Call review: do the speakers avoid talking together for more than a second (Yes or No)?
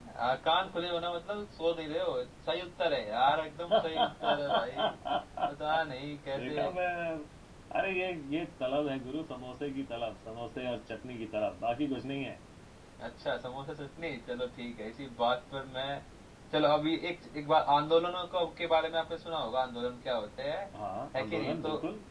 No